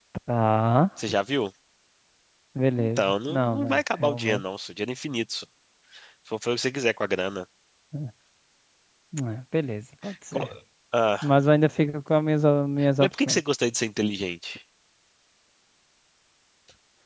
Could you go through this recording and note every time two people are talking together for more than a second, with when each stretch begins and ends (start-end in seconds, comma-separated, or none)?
2.8-4.4